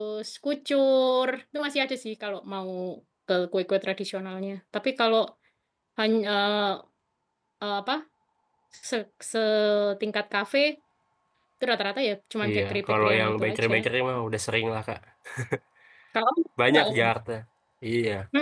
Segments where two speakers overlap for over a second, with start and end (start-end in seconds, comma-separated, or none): 12.5-13.7